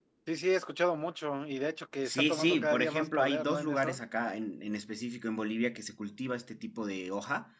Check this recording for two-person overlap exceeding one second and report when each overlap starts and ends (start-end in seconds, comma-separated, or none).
2.0-4.0